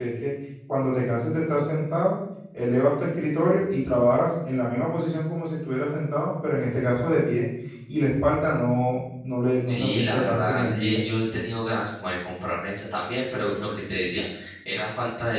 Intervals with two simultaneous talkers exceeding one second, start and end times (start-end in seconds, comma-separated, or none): 9.7-11.0